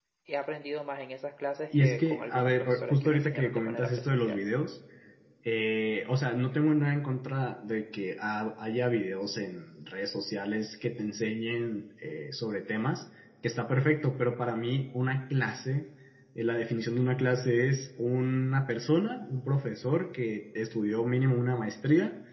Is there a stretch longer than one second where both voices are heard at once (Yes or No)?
Yes